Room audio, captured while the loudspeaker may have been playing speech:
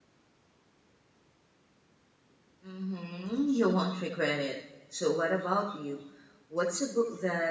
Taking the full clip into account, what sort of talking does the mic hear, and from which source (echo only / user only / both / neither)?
user only